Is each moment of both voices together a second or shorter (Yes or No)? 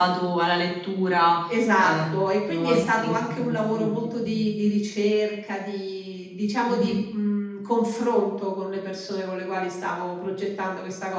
No